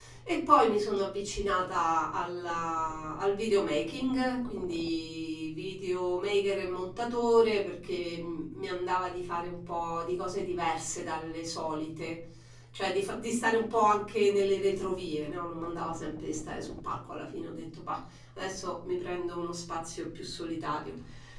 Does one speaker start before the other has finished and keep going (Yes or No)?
No